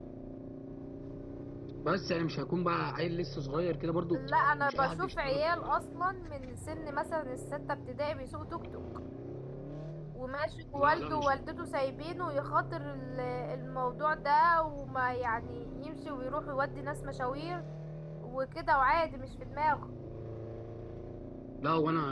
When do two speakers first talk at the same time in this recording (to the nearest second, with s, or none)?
4 s